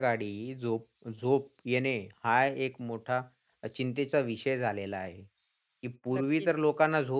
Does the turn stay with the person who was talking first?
Yes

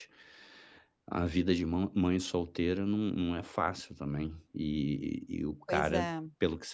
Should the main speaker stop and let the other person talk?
No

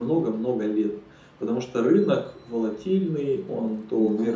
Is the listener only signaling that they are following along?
Yes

